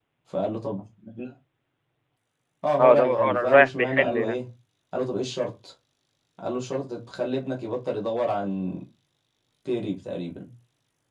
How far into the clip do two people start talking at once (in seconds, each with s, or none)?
2.8 s